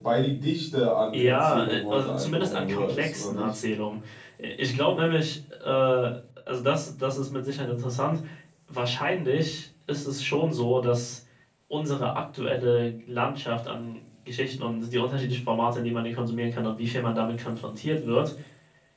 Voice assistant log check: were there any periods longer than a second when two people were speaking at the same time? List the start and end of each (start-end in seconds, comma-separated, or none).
1.1-3.6